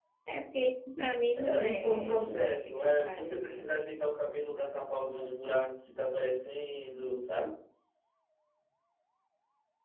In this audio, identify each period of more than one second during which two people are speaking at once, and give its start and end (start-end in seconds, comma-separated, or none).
1.4-3.7